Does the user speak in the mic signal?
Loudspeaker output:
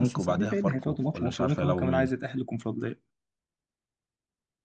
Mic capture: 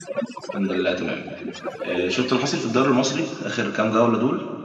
Yes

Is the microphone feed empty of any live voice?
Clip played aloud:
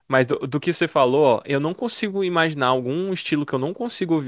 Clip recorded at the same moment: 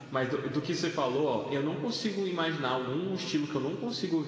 Yes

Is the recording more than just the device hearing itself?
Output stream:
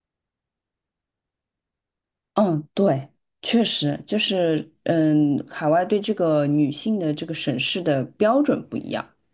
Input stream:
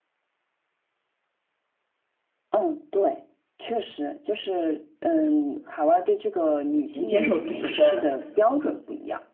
Yes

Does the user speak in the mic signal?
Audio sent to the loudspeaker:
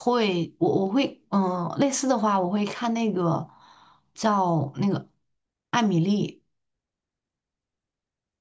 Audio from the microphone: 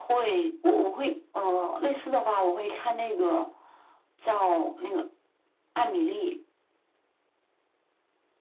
No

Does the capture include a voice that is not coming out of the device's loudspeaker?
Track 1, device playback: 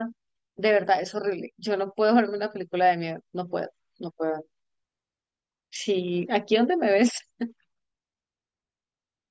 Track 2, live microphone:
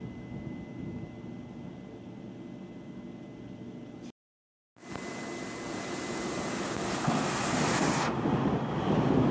No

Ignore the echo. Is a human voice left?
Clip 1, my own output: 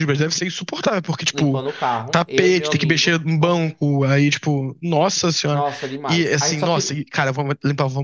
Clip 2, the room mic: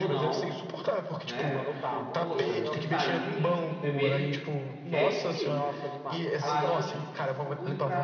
Yes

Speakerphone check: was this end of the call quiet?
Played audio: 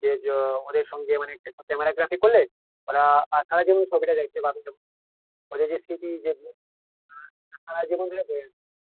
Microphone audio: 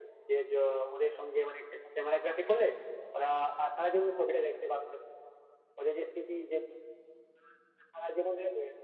Yes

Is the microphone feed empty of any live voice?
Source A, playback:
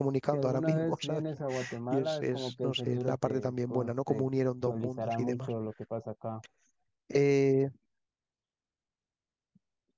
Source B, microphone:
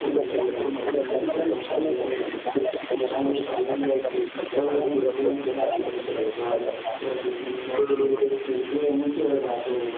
No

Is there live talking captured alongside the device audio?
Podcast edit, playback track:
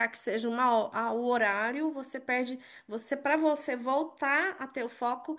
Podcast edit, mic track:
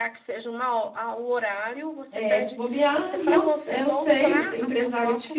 Yes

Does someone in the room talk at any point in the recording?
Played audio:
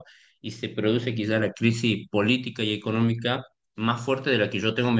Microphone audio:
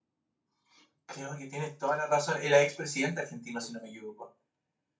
Yes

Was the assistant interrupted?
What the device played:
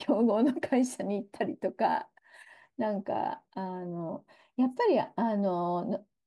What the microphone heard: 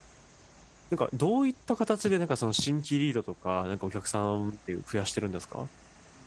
Yes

